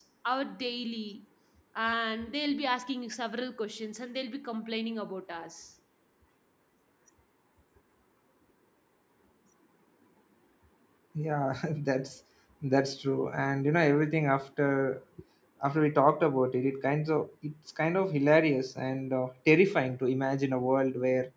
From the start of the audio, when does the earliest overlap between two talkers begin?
none

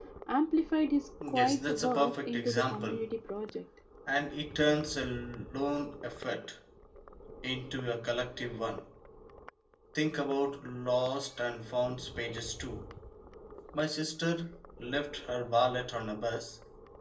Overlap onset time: 1 s

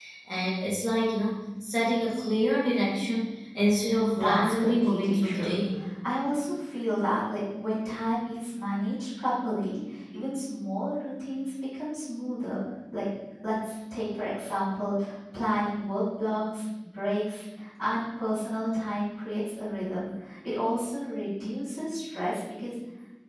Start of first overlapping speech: 4 s

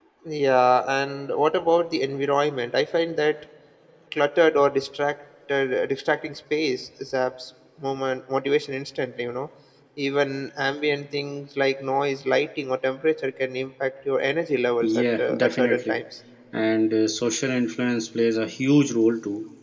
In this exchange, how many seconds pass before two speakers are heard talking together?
15 s

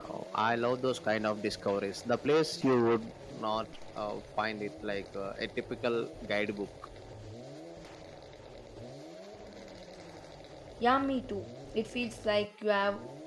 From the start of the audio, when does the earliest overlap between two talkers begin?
none

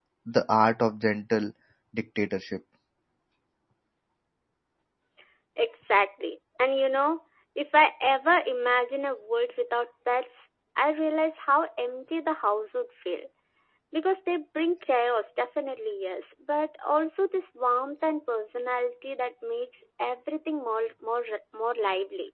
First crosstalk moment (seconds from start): none

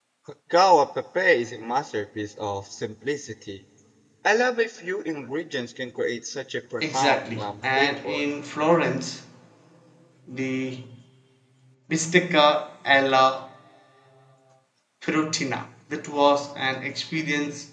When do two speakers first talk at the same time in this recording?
7 s

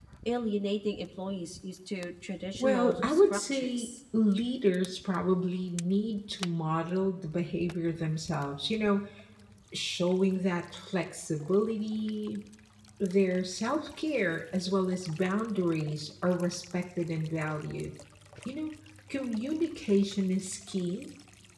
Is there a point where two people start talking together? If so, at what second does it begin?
3 s

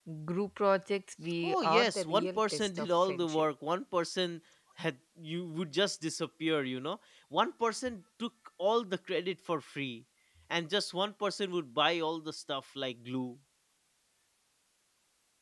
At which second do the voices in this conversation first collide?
1 s

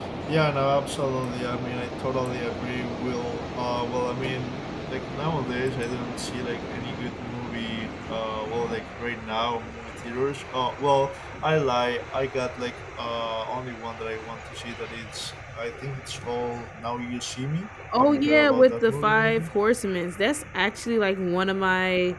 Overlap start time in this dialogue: 18 s

